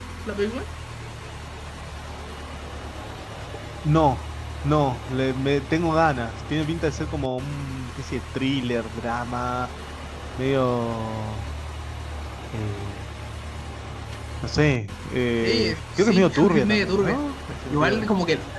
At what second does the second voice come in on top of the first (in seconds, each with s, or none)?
15.4 s